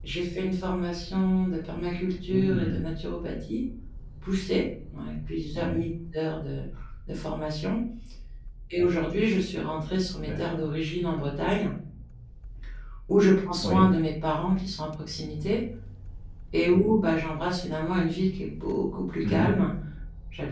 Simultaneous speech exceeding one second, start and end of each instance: none

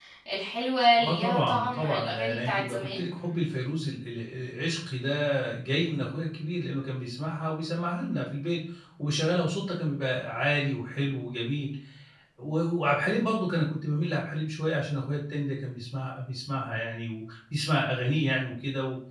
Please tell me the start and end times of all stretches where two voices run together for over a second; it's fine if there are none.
1.0-3.1

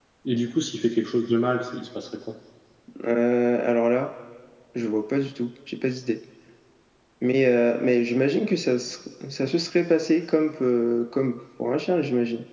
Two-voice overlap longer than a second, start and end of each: none

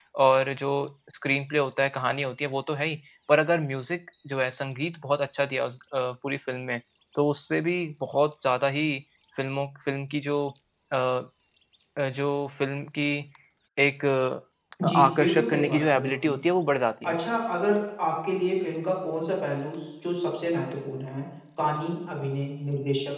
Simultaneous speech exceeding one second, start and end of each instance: 14.8-16.4

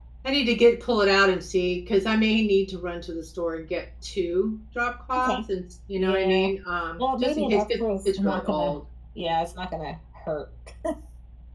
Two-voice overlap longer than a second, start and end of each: 7.0-8.8

